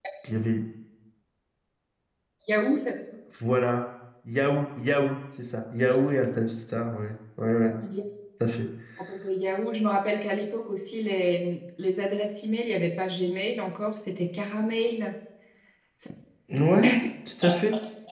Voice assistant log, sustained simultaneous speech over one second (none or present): none